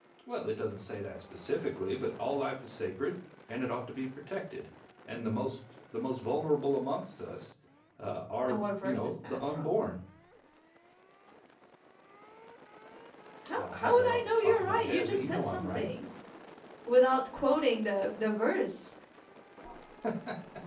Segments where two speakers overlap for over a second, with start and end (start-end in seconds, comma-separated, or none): 8.5-9.8, 13.6-15.9